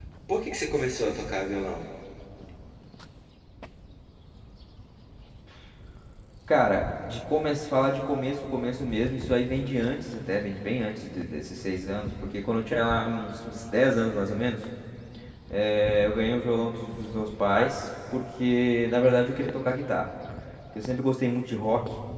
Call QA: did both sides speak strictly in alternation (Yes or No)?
Yes